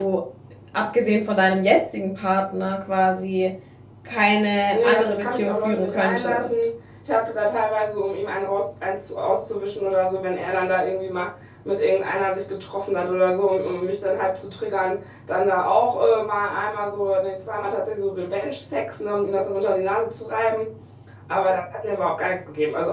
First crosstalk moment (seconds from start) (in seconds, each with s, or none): 4.7 s